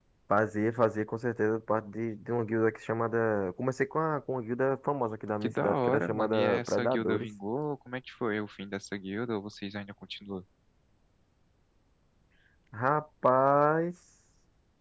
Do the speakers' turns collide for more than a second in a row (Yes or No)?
Yes